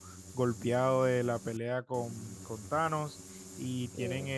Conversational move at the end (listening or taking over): listening